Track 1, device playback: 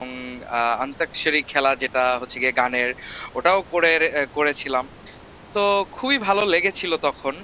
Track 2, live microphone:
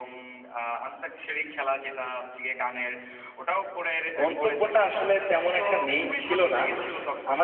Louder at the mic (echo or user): user